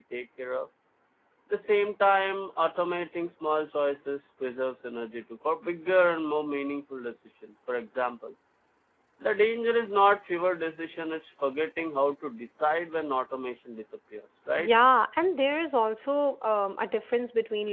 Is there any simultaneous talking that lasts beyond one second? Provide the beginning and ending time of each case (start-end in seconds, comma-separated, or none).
none